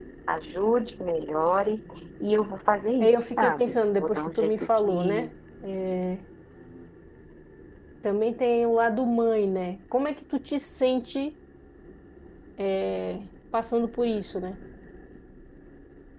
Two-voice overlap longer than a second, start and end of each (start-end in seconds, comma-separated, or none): 3.0-5.3